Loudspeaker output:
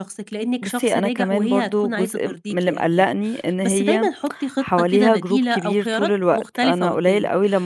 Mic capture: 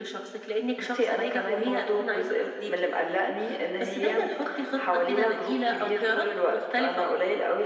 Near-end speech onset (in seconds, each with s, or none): none